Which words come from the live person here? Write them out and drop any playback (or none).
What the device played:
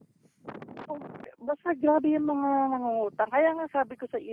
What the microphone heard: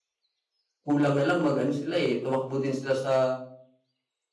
kulang na lang mag ano sila, eh, tumakbo din sila sa